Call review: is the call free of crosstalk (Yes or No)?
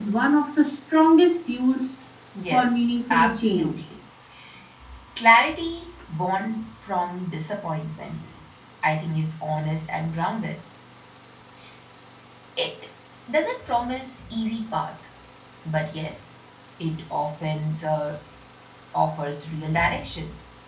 No